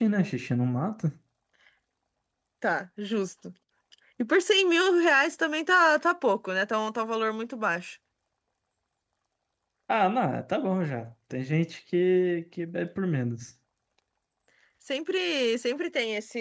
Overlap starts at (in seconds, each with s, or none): none